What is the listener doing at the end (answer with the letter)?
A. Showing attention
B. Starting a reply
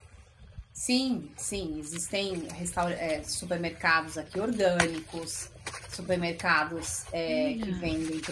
A